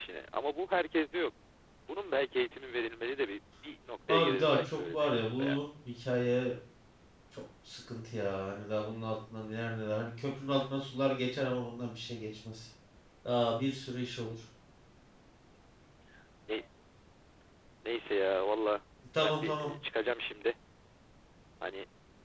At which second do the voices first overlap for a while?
4 s

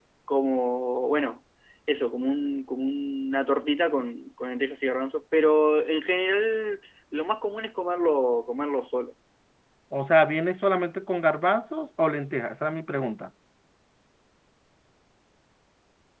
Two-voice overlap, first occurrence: none

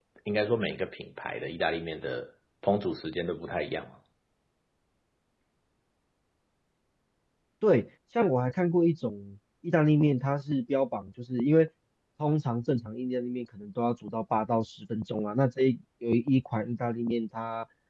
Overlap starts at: none

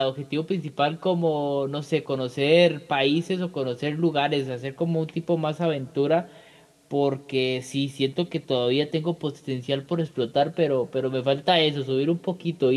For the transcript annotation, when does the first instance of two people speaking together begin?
none

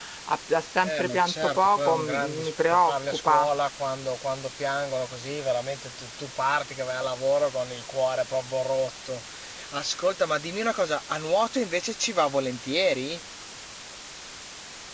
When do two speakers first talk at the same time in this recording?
1 s

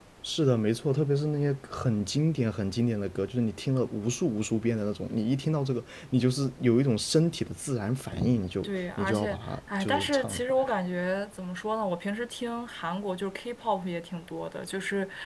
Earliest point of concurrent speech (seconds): 9 s

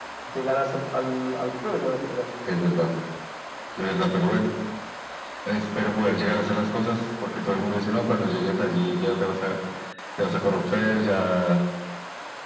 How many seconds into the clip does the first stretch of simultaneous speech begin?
none

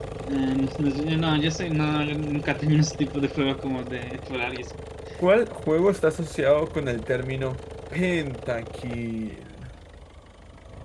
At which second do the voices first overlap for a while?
none

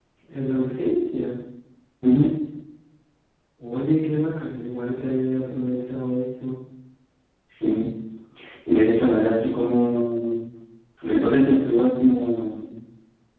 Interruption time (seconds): none

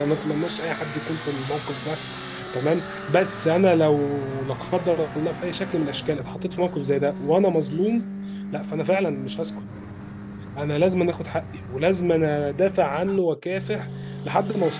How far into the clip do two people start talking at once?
none

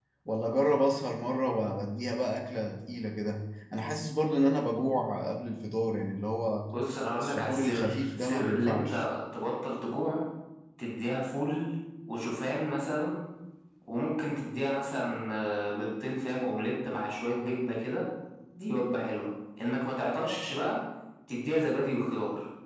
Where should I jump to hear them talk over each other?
7 s

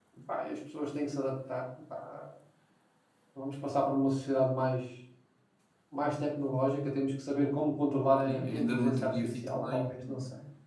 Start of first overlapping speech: 8 s

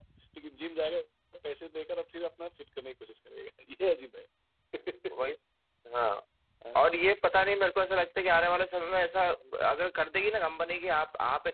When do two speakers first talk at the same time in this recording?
none

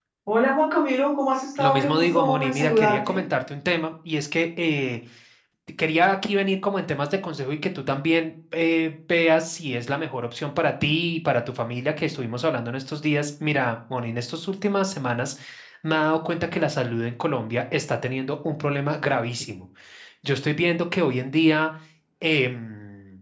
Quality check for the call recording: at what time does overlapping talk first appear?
2 s

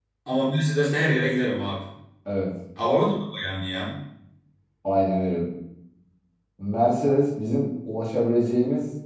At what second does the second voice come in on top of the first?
none

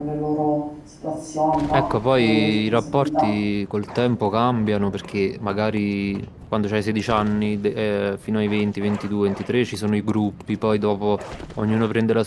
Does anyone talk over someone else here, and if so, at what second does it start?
2 s

